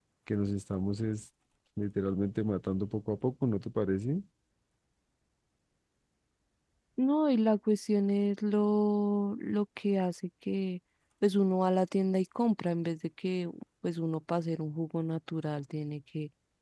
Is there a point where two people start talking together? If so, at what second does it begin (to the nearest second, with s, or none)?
none